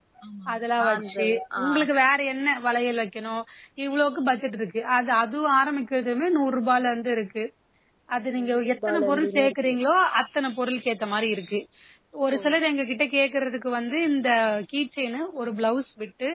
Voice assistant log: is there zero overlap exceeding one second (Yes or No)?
No